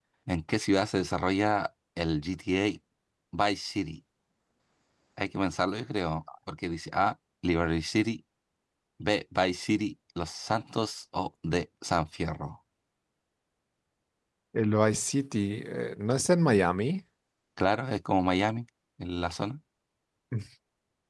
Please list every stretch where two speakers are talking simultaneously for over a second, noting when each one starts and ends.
none

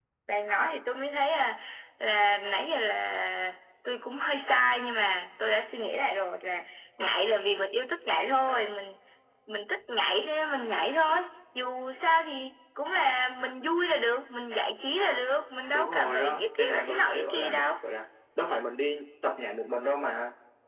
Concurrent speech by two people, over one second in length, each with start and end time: 15.7-17.7

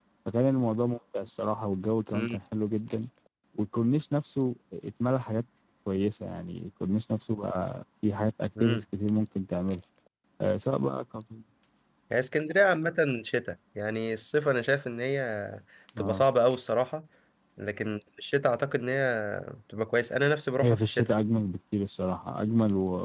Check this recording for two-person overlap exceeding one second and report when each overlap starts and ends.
none

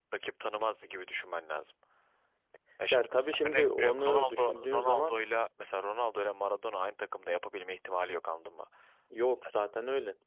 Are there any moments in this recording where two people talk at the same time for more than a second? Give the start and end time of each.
2.9-5.1

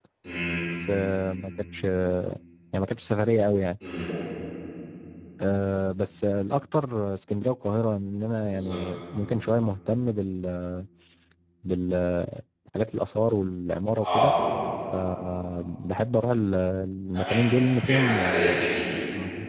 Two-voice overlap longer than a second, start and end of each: 17.1-18.6

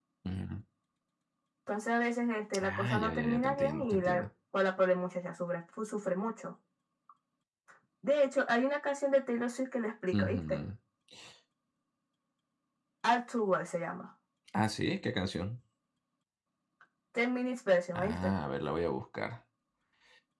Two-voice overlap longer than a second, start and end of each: 2.6-4.2

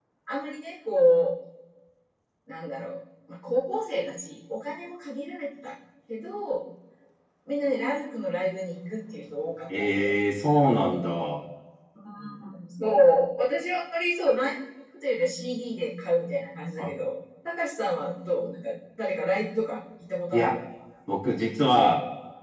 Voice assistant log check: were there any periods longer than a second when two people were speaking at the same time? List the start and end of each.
none

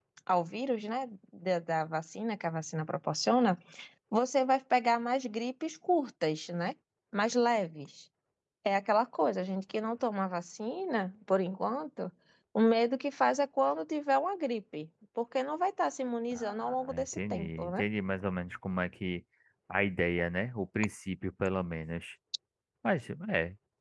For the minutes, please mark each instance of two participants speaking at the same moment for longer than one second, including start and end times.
16.3-17.8

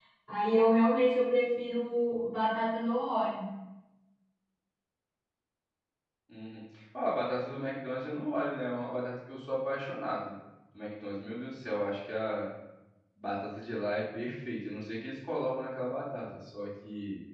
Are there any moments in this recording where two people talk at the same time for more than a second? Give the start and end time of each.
none

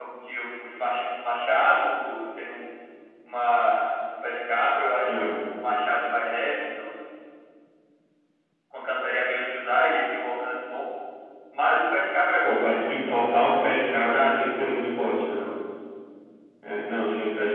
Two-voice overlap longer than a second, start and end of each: 12.4-14.4

